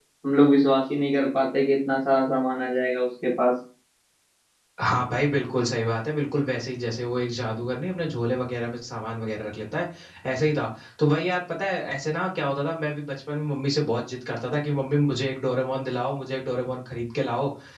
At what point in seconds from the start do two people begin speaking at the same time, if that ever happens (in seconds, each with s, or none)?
none